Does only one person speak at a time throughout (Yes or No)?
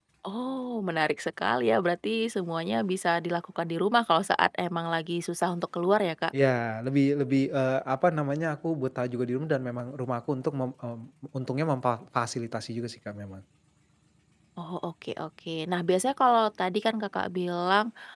Yes